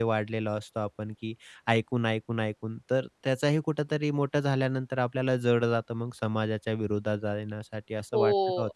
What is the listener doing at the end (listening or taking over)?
taking over